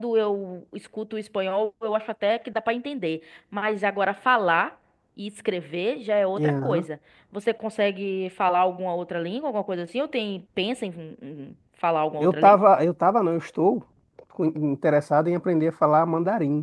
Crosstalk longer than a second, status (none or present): none